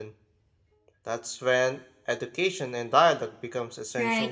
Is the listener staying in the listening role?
No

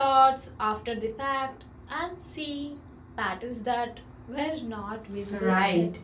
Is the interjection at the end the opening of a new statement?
Yes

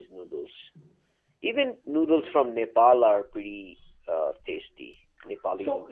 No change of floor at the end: No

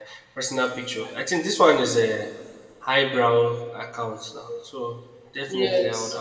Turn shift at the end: No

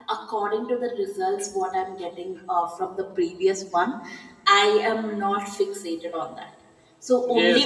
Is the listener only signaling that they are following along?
Yes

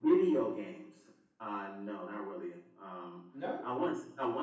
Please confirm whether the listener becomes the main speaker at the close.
No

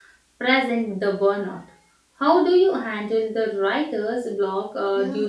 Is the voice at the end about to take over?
Yes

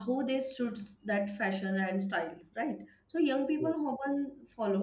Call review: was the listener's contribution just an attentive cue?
Yes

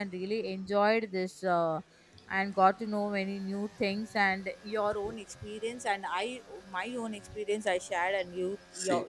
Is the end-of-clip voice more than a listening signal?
No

